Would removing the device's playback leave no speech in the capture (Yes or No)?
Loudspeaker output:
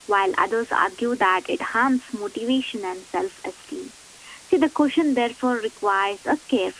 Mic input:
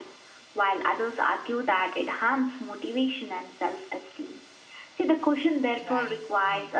No